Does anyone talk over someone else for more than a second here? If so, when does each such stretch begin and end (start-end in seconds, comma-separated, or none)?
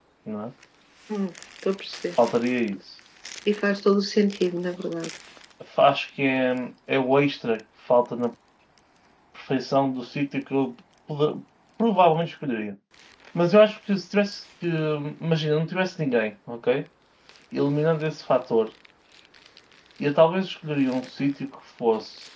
none